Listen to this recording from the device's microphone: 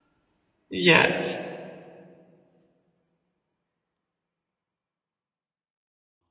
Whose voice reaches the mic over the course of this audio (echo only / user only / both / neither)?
user only